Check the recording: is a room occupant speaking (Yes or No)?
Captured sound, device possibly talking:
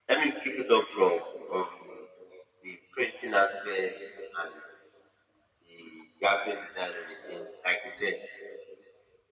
No